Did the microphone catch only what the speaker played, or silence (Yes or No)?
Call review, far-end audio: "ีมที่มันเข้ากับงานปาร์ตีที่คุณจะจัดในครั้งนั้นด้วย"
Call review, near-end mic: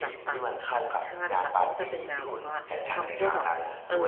No